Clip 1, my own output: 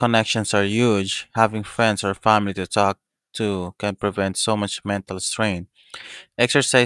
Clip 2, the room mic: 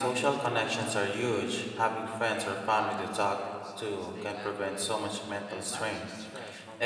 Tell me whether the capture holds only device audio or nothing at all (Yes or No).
No